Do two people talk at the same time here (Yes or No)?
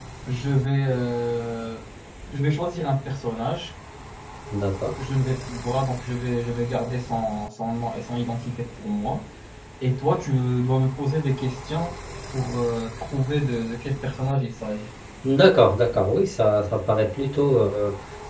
No